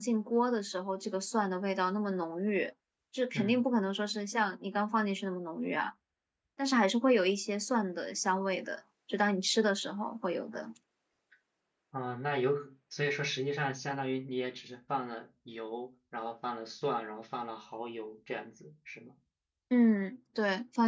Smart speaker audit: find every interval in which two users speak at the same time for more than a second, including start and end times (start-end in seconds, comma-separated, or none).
none